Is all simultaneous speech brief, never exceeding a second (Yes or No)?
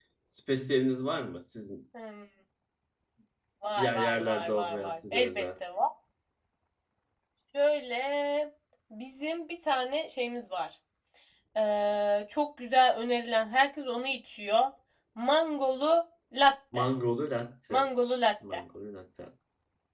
No